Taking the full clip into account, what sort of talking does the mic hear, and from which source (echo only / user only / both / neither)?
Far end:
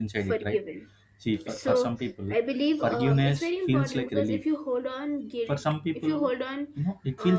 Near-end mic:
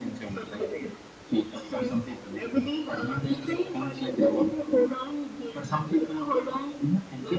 echo only